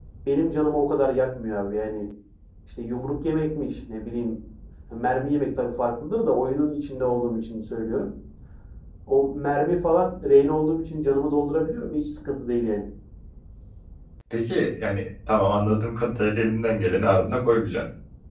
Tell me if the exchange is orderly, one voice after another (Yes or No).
Yes